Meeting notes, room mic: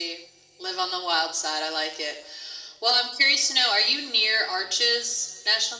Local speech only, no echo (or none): none